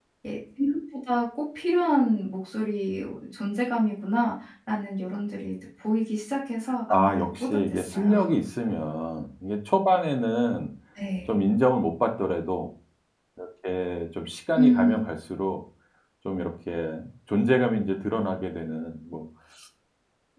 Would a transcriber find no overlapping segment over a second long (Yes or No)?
No